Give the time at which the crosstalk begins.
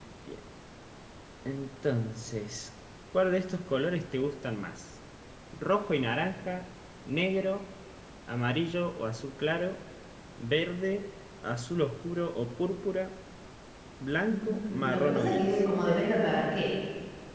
14.3 s

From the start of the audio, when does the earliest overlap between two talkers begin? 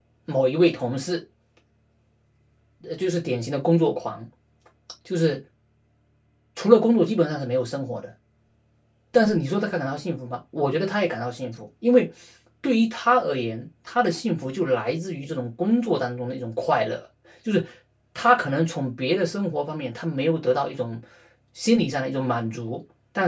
none

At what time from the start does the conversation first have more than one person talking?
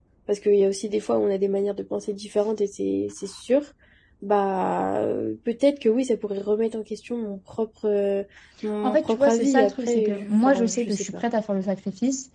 8.8 s

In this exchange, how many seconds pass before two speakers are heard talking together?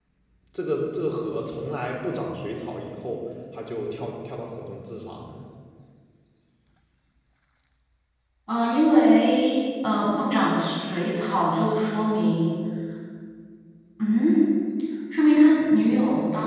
none

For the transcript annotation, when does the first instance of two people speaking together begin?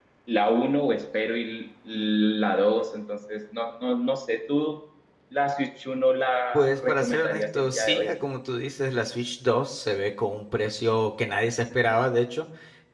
6.5 s

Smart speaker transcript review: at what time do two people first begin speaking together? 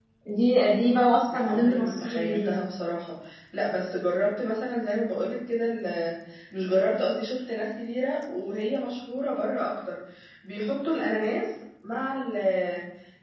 1.3 s

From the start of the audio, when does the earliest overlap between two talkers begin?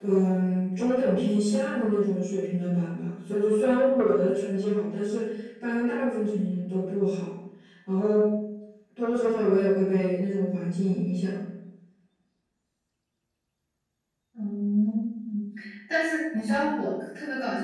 none

